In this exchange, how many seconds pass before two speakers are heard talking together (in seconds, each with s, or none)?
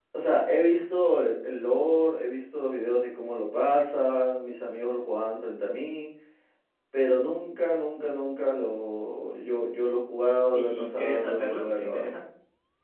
10.5 s